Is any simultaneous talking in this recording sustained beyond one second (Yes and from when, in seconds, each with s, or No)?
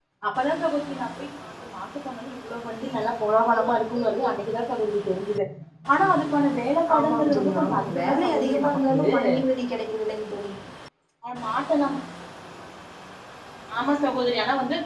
Yes, from 6.9 s